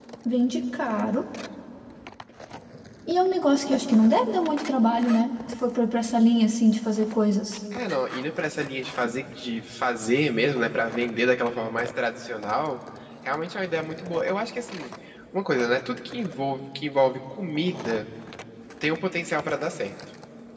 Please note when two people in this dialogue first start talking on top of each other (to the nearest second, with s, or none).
none